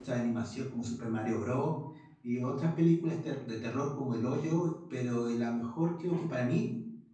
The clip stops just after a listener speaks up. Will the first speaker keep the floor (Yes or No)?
Yes